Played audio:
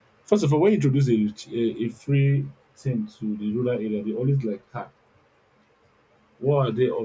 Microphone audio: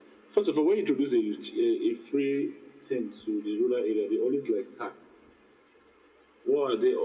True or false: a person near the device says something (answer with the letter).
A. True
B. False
B